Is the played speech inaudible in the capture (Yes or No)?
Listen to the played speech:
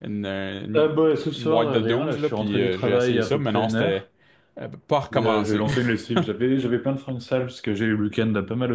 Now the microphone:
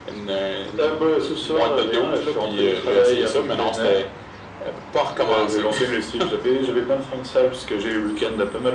No